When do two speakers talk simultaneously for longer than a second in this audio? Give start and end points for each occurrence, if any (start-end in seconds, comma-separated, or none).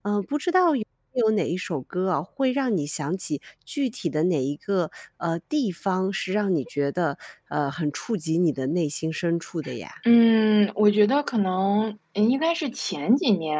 none